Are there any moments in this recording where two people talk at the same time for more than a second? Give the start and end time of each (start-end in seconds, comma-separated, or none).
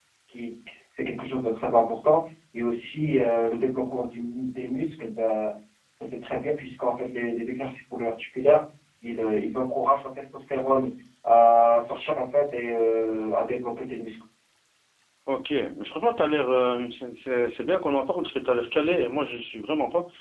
none